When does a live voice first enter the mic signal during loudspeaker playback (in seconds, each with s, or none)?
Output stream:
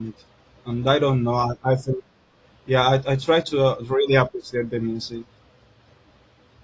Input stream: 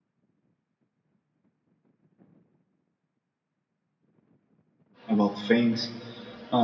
5.1 s